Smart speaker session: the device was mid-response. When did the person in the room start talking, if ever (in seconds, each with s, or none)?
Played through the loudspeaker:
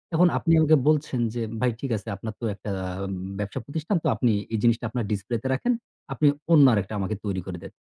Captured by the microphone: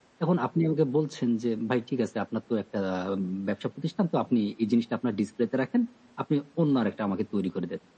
none